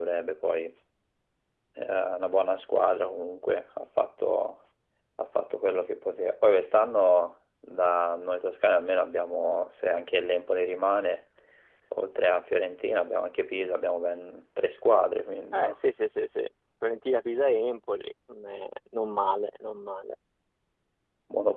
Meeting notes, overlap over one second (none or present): none